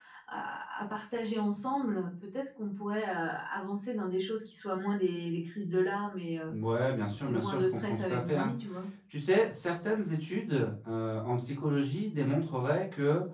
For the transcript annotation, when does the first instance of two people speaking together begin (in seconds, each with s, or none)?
7.3 s